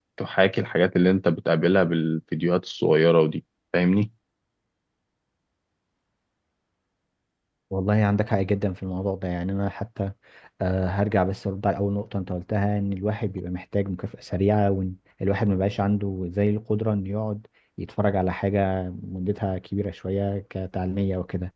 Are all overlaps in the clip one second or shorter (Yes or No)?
Yes